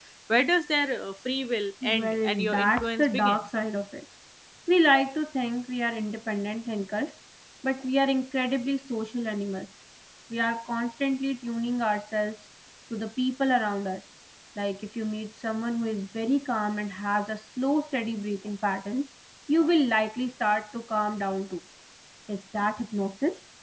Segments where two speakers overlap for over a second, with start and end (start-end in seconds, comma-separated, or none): 1.8-3.4